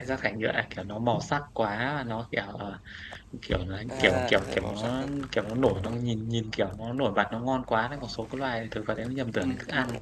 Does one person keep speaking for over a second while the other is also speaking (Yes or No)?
Yes